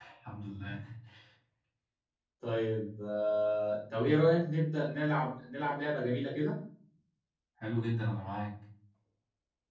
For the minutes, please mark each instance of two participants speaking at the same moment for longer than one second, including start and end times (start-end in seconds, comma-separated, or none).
none